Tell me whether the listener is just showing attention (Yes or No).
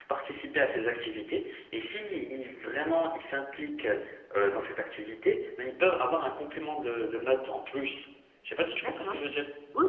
No